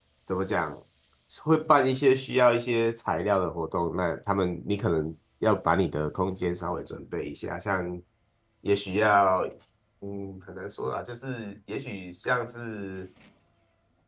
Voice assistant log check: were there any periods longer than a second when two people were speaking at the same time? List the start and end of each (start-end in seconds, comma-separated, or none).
none